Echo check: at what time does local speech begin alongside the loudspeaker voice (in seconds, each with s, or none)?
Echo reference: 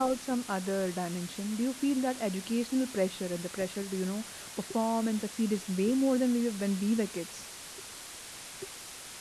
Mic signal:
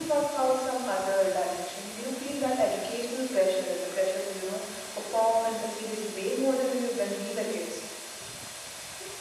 none